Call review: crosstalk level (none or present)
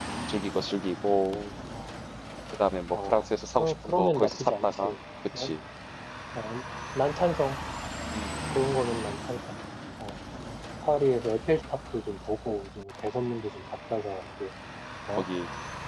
present